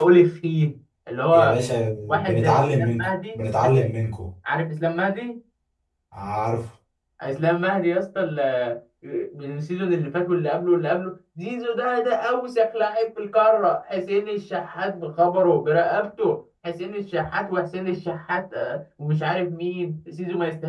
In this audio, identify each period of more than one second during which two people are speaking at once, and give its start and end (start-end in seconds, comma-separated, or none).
2.1-3.9